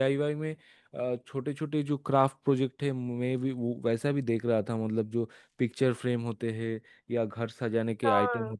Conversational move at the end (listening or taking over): listening